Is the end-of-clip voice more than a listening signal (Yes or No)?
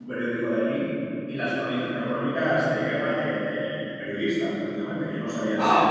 Yes